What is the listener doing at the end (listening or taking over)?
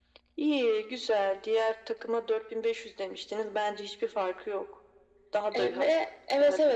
taking over